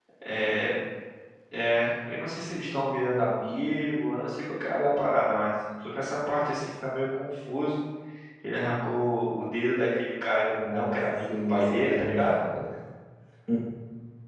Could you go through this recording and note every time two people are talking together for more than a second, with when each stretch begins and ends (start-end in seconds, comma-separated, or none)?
10.5-12.4